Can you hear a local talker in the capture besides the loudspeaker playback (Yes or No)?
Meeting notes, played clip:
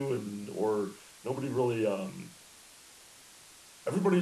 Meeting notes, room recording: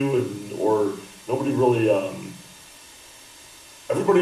No